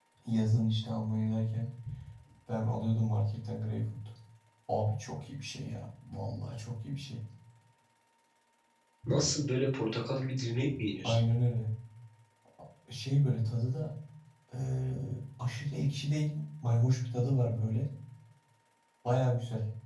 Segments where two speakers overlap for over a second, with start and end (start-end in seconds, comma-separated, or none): none